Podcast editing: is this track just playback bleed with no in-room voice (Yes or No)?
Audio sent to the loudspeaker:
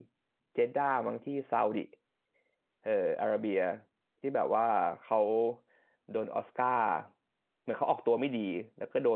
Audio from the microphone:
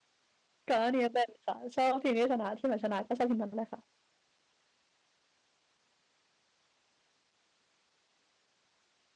No